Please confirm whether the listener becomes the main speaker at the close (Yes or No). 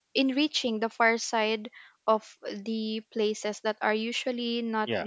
No